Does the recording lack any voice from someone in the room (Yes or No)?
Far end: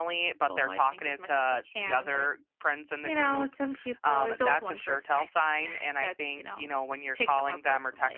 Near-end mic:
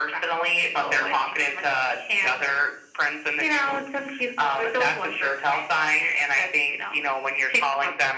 Yes